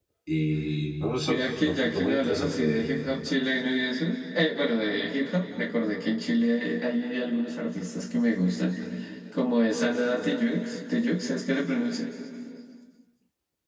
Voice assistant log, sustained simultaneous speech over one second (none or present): present